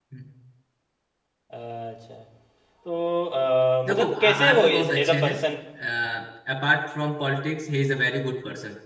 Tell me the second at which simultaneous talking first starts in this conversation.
4 s

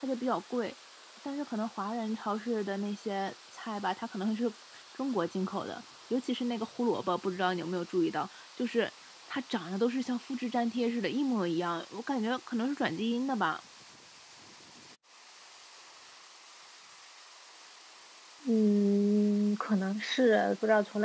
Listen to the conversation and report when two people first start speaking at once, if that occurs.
none

